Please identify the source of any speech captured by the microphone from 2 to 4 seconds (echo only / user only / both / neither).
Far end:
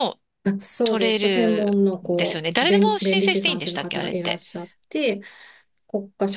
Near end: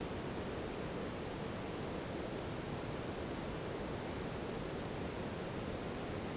neither